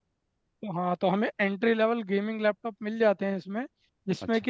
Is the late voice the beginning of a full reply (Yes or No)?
No